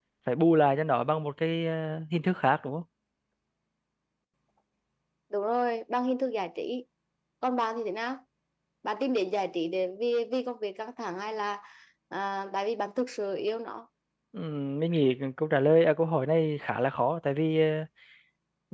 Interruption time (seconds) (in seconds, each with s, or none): none